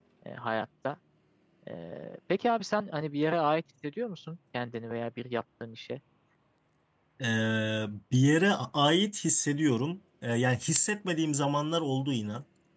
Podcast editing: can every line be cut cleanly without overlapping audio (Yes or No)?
Yes